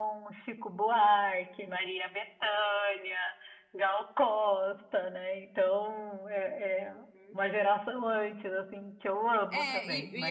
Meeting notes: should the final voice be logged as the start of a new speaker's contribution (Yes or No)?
Yes